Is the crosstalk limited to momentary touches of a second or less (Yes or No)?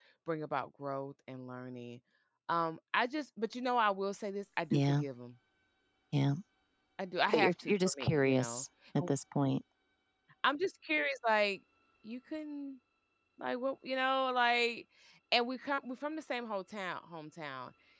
No